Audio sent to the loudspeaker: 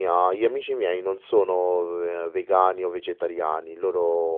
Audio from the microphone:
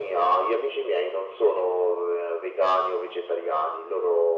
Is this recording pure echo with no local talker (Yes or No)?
Yes